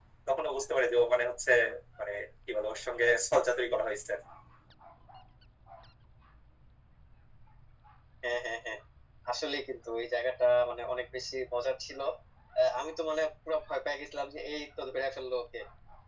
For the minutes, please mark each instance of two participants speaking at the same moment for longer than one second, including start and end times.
none

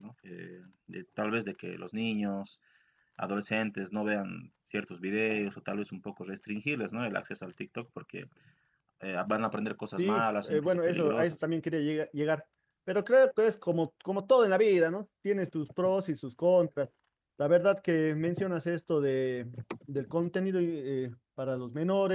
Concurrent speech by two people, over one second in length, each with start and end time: 10.0-11.4

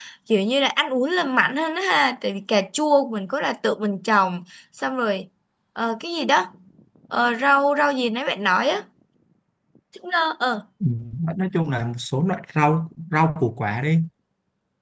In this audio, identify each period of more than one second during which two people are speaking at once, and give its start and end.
none

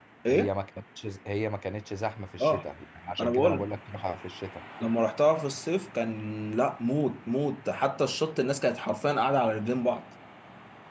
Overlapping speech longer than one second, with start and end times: none

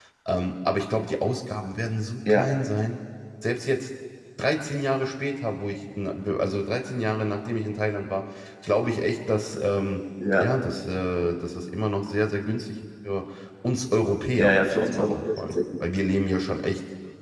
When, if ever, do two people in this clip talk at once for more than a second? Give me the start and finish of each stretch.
14.3-15.8

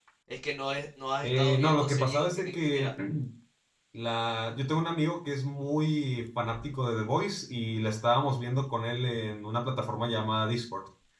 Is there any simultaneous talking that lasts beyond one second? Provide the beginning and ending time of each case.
1.2-2.9

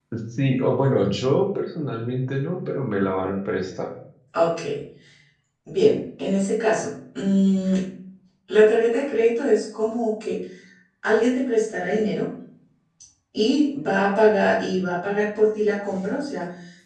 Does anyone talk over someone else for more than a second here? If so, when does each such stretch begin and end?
none

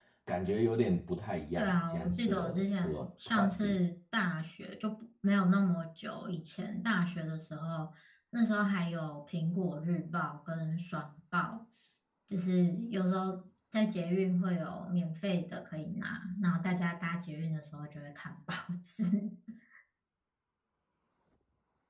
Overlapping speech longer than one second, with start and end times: 1.5-3.8

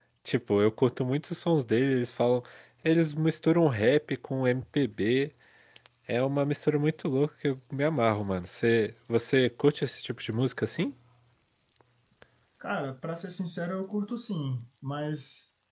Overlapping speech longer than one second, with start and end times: none

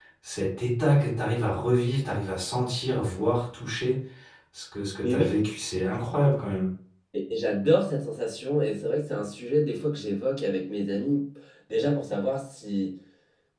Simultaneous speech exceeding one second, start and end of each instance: none

